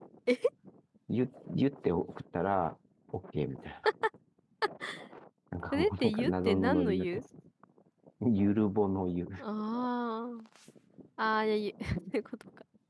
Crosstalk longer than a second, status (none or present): present